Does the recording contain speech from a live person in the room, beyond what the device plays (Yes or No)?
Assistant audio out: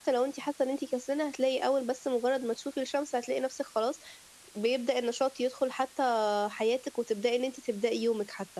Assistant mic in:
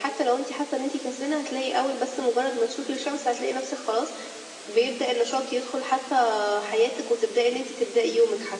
No